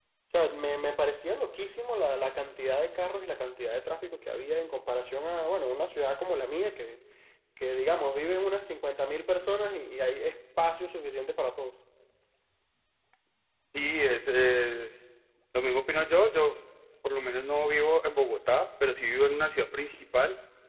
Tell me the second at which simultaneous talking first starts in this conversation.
none

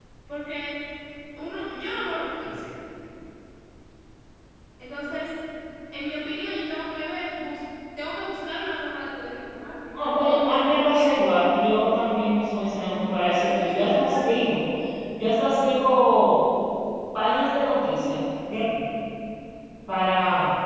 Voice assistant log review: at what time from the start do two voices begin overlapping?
9.9 s

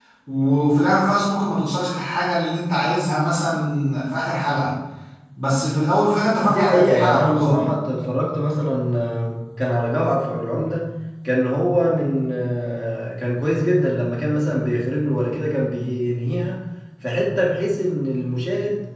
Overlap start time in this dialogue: 6.5 s

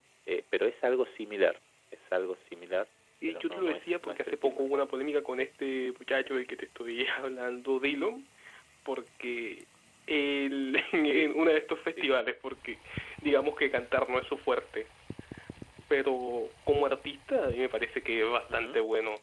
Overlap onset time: 3.3 s

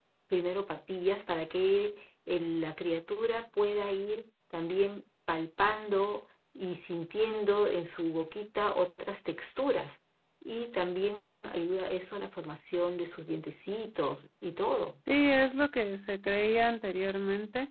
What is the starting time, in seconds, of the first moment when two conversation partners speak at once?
none

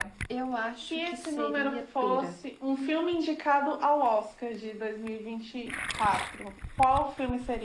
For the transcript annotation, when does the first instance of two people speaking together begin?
0.9 s

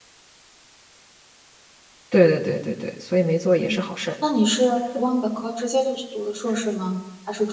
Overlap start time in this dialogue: none

